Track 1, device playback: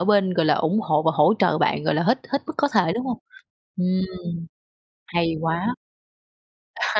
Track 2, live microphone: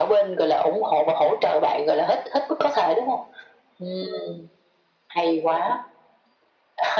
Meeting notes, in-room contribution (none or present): none